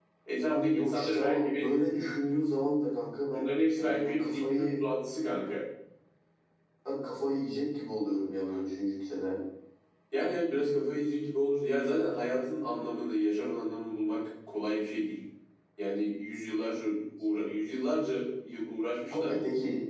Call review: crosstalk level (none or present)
present